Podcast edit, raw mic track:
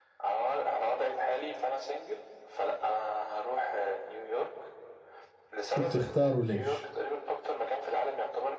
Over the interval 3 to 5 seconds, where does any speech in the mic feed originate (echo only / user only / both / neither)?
echo only